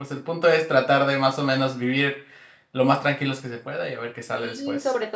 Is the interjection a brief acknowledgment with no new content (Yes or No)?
No